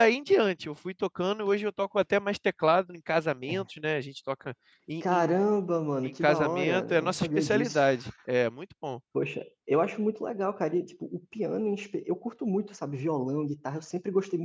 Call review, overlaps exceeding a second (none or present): present